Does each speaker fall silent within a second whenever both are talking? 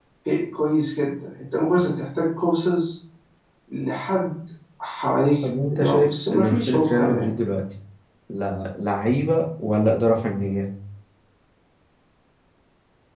No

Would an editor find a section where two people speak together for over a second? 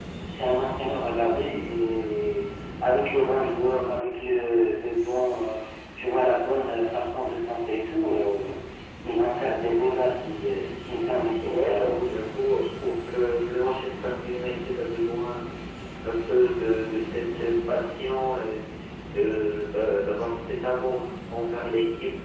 No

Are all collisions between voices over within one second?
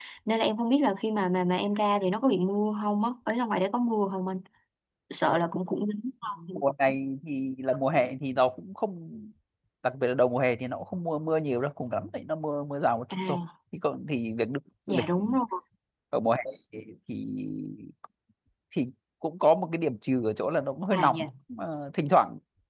Yes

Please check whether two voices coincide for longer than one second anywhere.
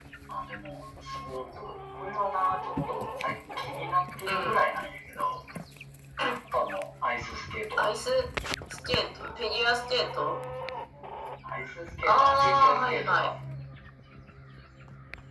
Yes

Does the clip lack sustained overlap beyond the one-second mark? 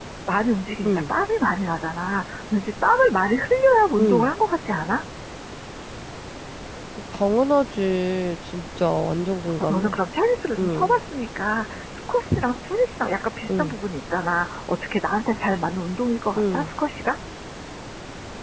Yes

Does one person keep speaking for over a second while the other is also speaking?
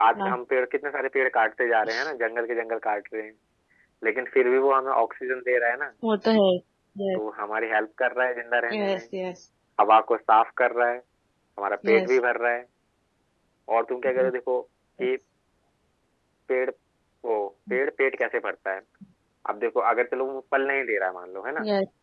No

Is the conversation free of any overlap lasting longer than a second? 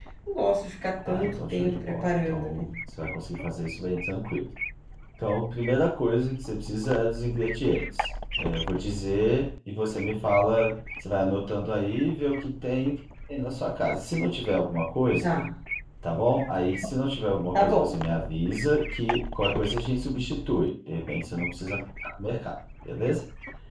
No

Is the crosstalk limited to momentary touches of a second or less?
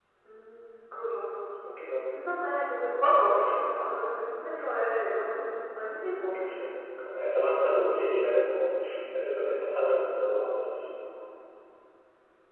Yes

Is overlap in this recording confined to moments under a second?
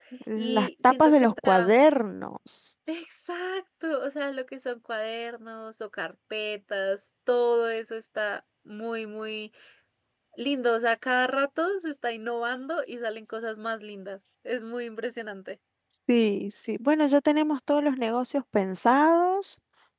No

